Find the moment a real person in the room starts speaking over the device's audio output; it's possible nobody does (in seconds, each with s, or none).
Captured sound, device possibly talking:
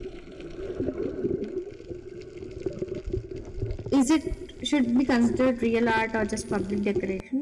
3.9 s